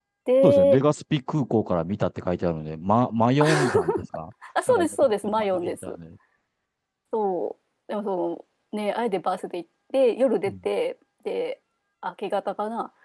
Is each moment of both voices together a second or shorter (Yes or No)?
No